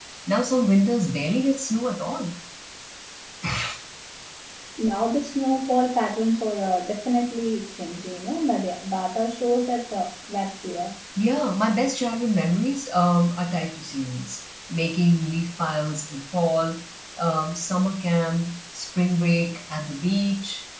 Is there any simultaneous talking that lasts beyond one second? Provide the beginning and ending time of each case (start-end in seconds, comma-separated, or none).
none